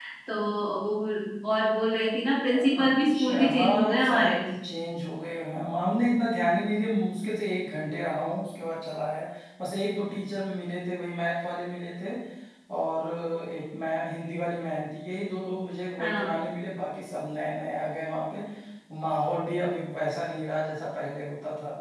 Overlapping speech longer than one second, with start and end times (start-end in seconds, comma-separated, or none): 2.5-4.4